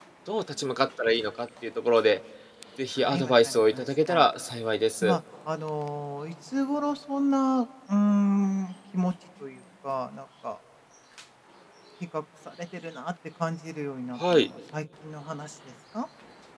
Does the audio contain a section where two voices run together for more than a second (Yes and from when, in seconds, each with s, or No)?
Yes, from 3.0 s